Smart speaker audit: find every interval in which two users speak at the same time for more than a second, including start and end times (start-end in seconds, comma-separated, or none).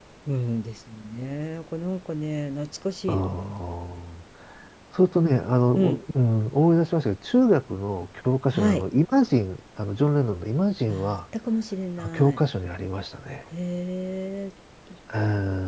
none